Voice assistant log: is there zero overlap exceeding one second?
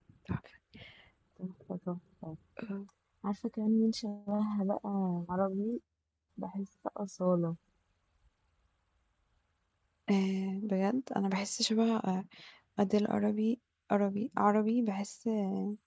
Yes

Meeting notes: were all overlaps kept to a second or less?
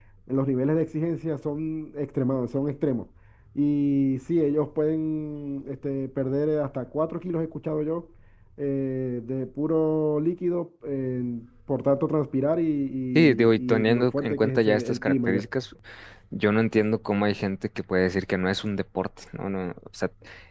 No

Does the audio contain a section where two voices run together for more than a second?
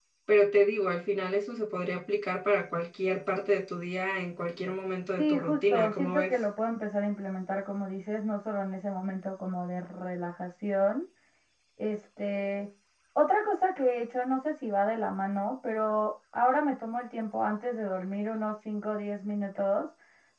Yes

